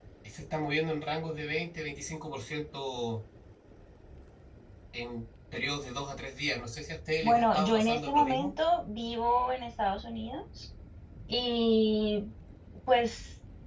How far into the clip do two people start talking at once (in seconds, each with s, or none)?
7.2 s